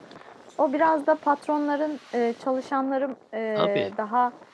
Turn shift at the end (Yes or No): No